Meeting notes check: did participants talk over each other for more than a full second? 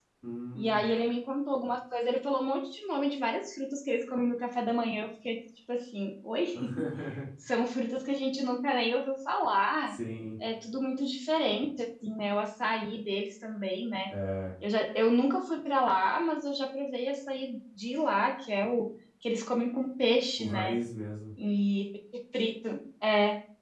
No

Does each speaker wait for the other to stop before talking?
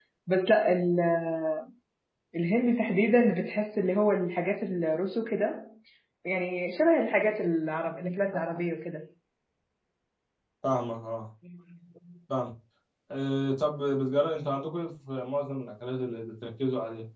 Yes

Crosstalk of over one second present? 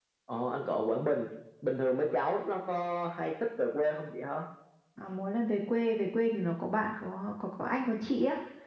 No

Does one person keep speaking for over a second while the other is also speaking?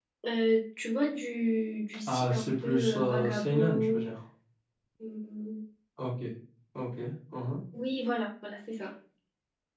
Yes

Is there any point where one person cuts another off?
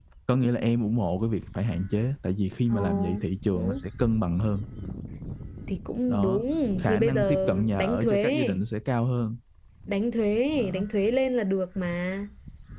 Yes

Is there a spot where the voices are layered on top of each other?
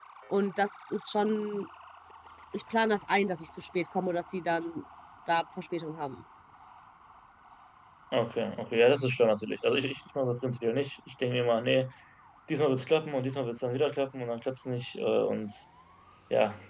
No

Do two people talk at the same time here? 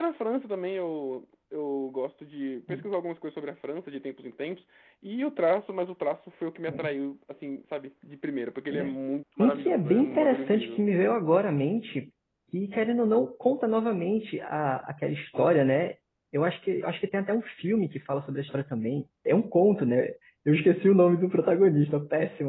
Yes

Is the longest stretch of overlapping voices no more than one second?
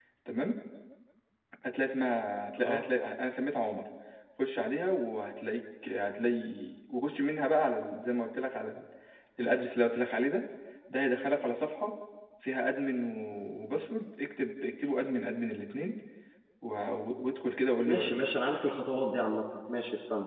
Yes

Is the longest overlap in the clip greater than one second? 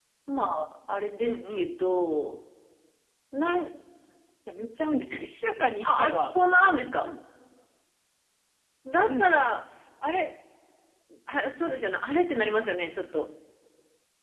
No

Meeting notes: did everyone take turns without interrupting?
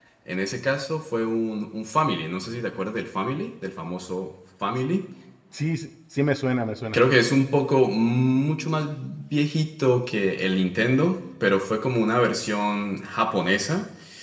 Yes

